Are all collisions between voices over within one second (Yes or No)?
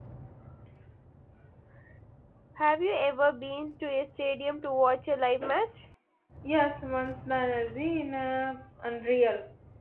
Yes